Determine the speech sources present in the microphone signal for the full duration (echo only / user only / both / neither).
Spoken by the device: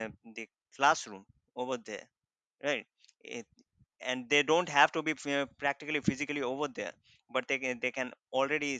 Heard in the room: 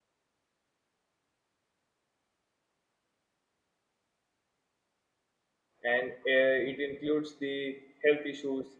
user only